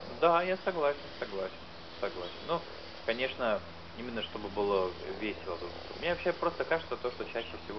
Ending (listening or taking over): listening